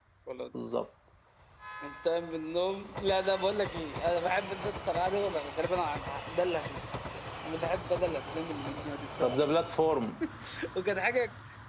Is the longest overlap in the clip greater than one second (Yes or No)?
No